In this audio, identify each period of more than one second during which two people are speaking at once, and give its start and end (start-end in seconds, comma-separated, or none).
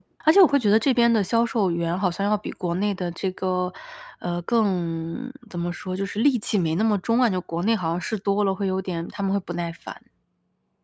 none